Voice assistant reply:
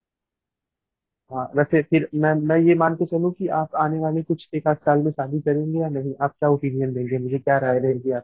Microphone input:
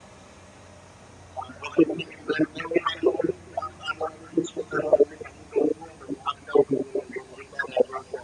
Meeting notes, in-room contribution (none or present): none